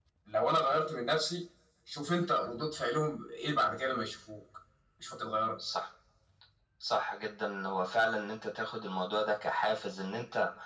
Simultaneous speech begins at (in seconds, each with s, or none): none